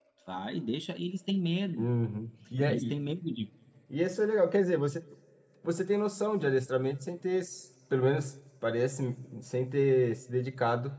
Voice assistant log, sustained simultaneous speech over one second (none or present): none